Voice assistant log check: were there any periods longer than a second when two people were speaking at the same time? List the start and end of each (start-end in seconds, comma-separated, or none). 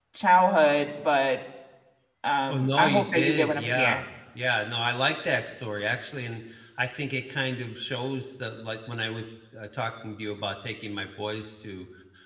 2.5-4.0